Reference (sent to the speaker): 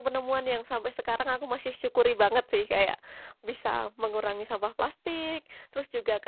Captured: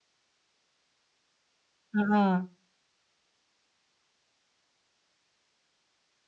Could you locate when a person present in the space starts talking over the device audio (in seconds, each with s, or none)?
1.9 s